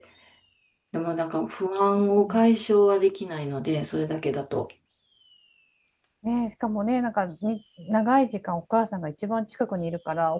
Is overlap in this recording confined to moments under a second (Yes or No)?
Yes